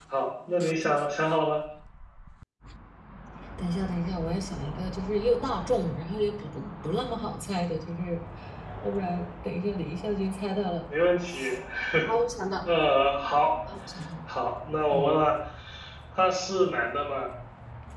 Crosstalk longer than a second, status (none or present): none